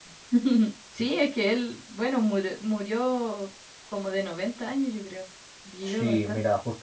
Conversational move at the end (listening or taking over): taking over